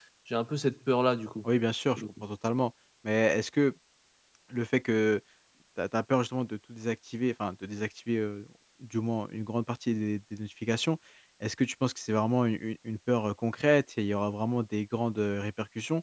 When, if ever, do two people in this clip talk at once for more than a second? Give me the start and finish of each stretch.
none

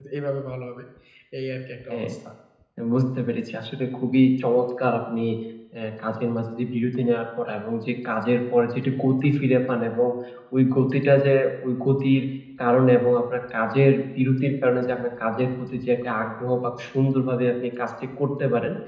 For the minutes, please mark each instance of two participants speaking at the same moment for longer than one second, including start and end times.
none

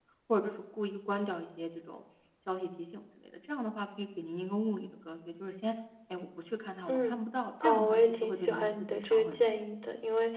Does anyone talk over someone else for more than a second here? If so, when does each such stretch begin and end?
7.6-9.6

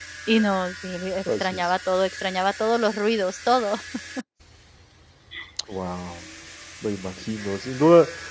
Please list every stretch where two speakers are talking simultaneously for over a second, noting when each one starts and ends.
none

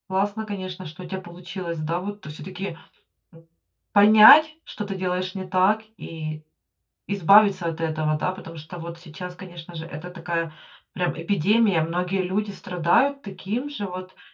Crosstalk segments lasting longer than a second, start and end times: none

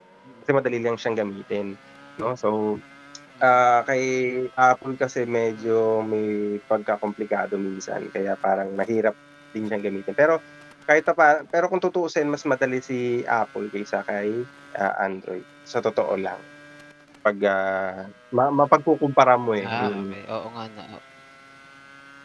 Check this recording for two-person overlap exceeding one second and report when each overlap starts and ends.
none

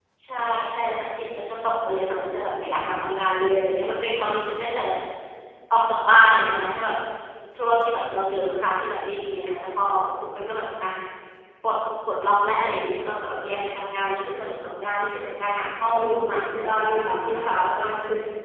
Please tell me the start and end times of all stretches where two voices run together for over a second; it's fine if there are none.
15.6-17.7

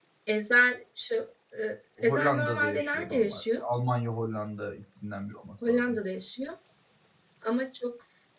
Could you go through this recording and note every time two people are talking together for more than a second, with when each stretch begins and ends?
2.0-3.6

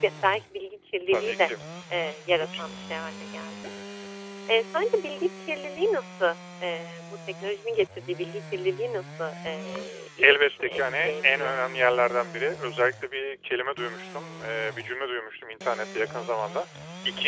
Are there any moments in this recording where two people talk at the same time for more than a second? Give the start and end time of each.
10.2-11.6

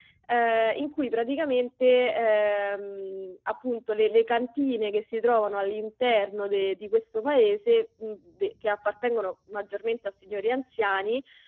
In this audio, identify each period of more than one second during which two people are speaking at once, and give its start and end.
none

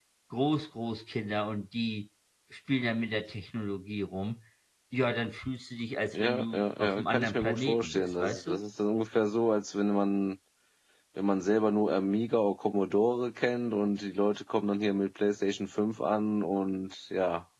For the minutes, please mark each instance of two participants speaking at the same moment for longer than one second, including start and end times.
6.1-8.6

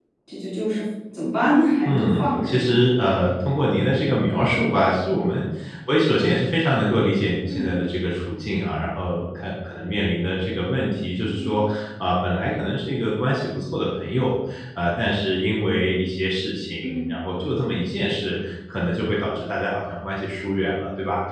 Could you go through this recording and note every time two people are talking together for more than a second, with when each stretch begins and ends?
1.9-3.1

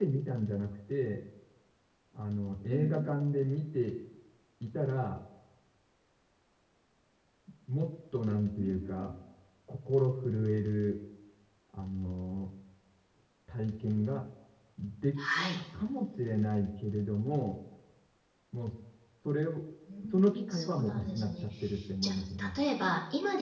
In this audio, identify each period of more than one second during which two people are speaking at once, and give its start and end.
20.1-21.4

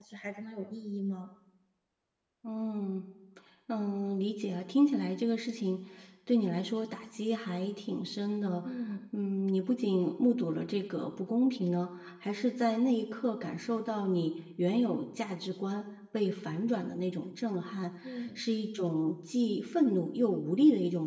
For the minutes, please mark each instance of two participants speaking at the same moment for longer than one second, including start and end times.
none

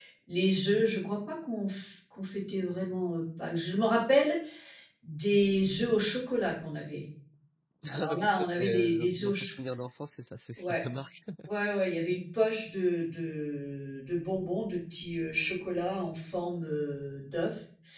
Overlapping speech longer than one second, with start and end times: 7.9-9.5

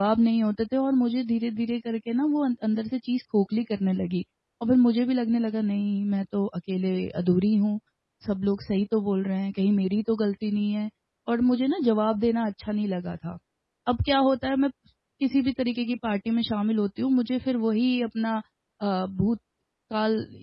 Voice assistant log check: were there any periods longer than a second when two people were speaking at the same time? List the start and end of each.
none

